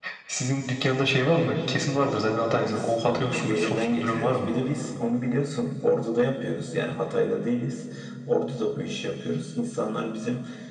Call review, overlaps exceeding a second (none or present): present